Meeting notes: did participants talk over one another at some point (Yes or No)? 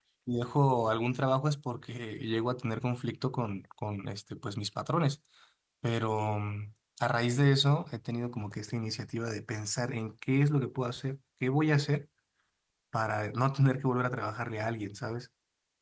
No